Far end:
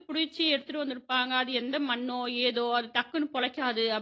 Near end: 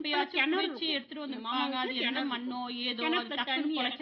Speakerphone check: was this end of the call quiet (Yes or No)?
No